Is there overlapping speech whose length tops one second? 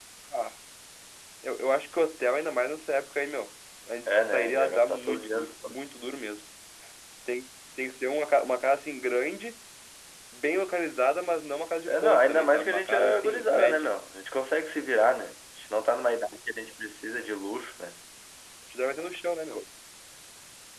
Yes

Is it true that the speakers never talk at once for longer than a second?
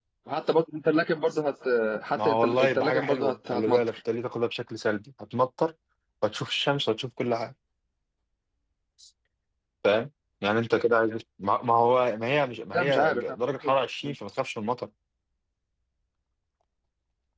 No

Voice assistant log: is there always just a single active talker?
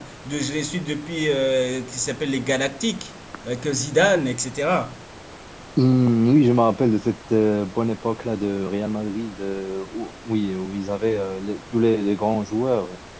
Yes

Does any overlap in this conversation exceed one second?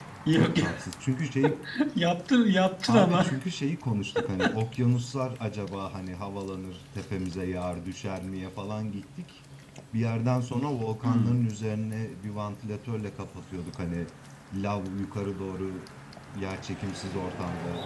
No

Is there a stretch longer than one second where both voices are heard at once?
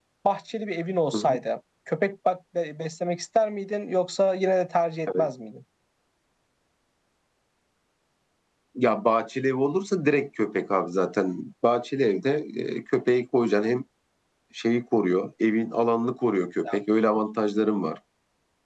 No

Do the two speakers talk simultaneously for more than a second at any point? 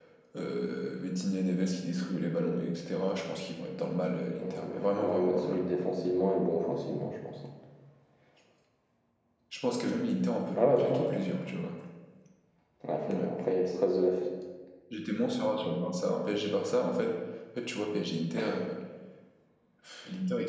Yes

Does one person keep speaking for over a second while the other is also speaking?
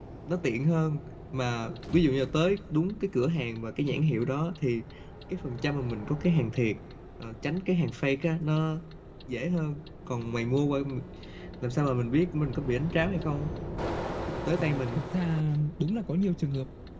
No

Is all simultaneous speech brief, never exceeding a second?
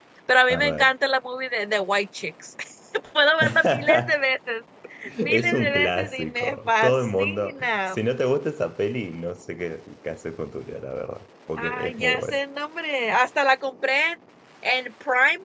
No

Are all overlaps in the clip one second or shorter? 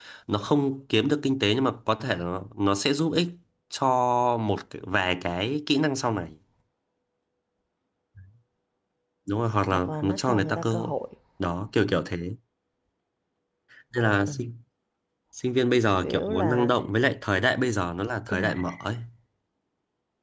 No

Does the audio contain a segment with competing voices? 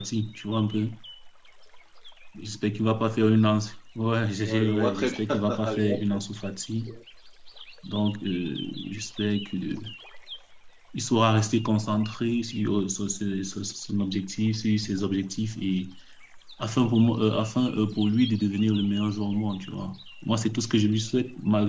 Yes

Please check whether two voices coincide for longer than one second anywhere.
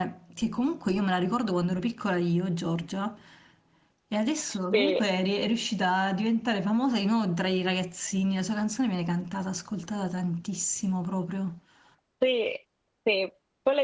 No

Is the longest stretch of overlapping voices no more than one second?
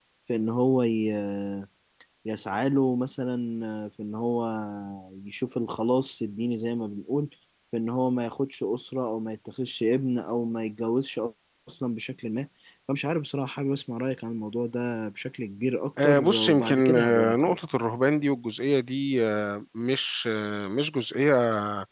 No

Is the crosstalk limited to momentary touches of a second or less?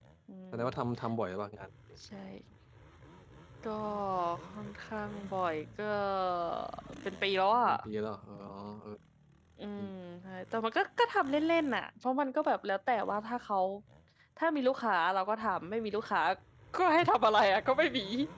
Yes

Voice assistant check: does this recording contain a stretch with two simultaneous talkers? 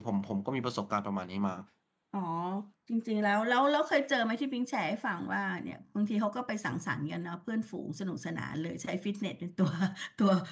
No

